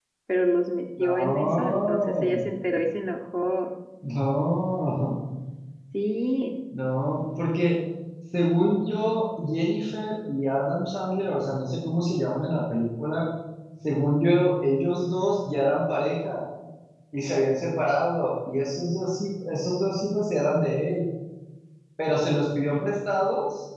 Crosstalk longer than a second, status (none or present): present